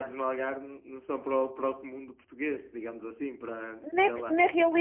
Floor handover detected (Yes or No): Yes